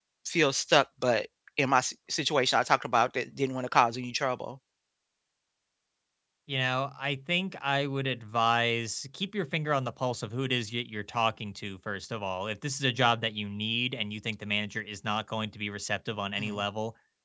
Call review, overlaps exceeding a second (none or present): none